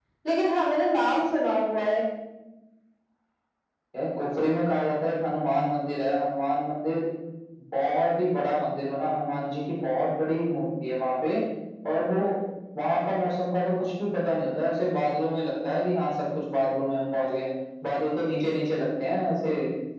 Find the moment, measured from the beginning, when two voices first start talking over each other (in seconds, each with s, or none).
none